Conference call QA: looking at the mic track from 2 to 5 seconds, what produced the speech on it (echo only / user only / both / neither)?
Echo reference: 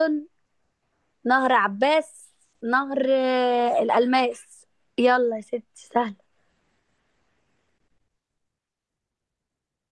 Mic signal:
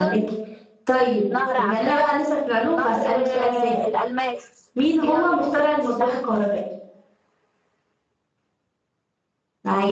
both